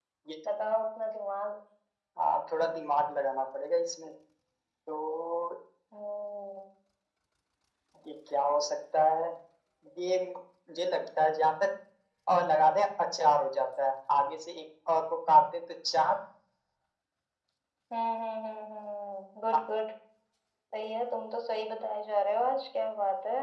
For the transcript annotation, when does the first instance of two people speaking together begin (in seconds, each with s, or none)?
none